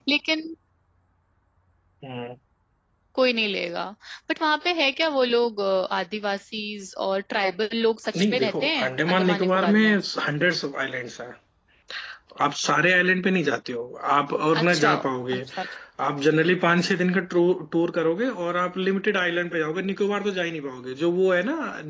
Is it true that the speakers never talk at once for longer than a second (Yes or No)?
No